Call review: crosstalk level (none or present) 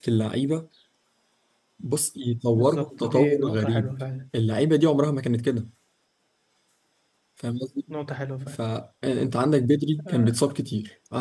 present